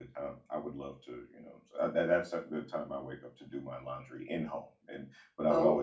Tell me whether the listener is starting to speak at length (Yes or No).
No